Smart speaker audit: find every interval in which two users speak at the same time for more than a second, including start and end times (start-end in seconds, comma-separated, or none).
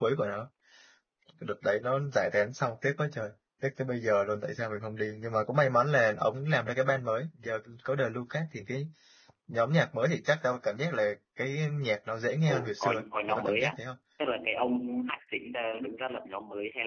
12.5-13.7